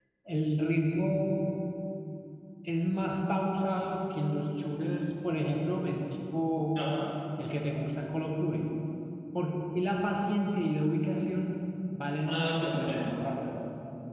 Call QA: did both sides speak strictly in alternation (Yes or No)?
No